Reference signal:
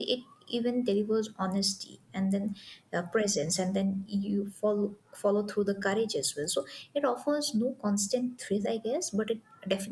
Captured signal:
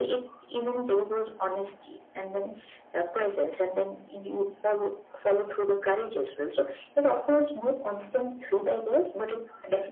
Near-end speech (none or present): none